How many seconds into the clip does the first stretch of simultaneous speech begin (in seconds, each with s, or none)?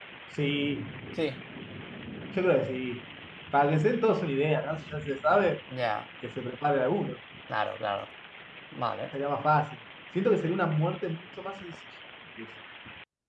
none